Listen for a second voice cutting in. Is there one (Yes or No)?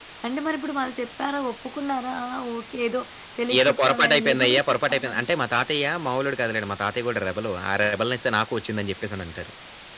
Yes